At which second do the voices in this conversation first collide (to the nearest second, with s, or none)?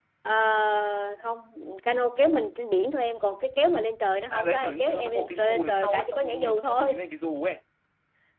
4 s